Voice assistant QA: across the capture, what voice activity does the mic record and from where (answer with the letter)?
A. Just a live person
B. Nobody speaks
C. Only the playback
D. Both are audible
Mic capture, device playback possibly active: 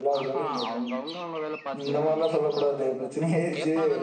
D